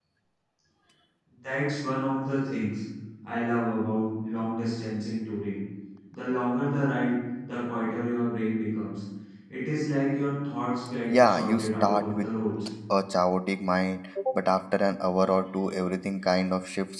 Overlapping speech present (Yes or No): Yes